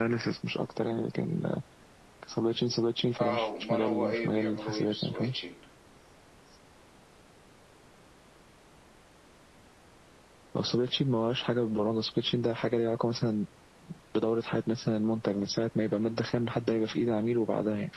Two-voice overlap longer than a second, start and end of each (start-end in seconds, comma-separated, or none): 3.2-5.3